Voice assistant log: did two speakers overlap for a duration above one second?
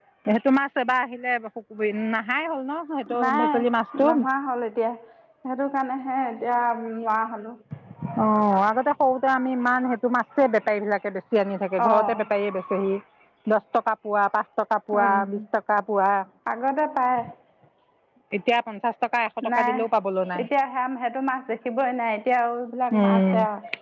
No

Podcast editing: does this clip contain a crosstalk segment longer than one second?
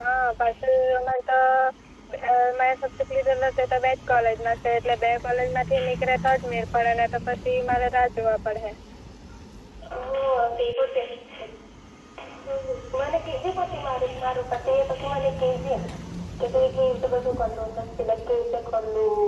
No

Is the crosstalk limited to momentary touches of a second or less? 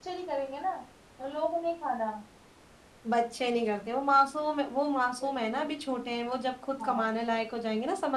Yes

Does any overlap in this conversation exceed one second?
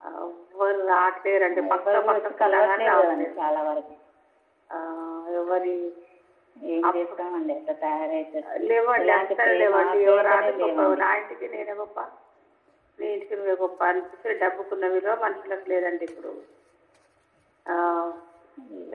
Yes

